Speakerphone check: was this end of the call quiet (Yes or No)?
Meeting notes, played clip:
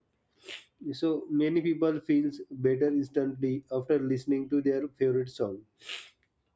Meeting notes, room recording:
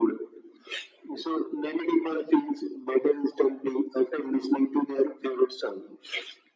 Yes